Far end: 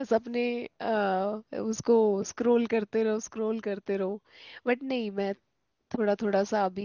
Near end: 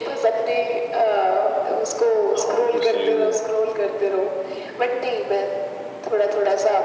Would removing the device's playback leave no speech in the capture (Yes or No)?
No